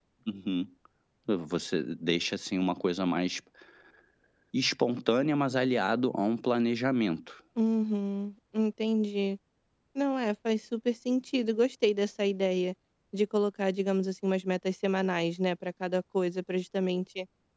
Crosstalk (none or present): none